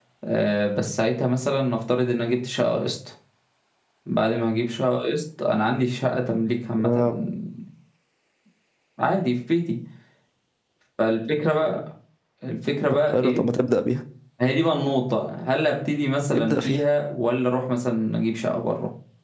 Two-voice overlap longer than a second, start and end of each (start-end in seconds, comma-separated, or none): none